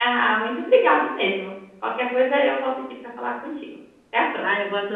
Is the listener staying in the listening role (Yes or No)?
No